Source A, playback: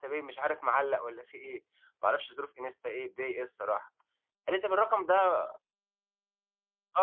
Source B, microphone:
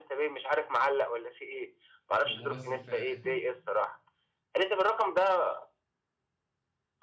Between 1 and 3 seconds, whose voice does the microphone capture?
both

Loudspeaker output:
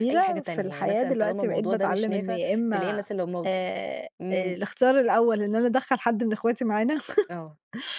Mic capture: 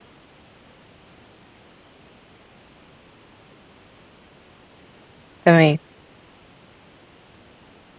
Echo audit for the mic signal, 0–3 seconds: neither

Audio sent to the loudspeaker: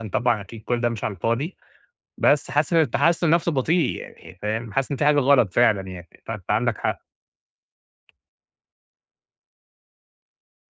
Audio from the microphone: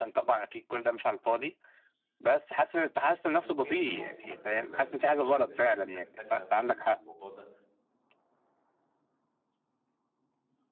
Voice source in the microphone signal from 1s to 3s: echo only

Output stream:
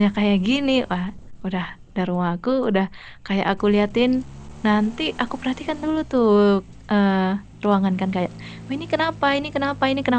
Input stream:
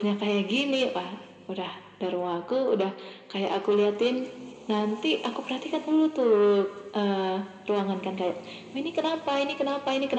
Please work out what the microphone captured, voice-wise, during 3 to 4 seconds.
echo only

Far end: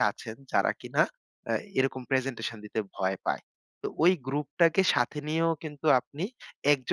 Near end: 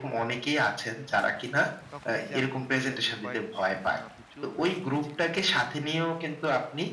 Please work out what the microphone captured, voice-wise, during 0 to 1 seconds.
echo only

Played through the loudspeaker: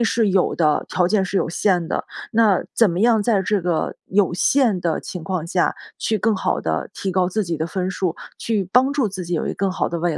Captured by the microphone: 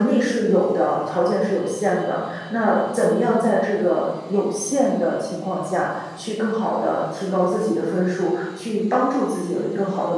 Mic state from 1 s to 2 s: echo only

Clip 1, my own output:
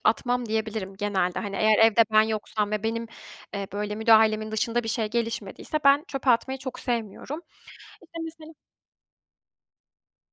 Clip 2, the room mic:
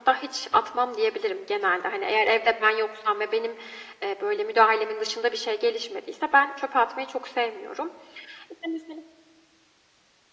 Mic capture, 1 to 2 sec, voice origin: echo only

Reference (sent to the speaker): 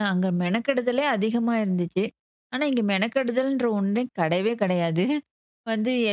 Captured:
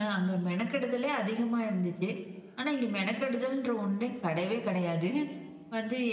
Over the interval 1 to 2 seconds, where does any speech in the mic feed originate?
echo only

